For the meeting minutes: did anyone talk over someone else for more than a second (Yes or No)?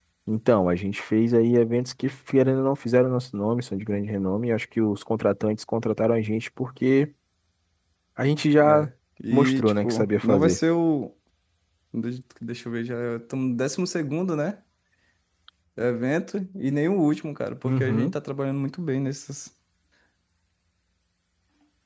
Yes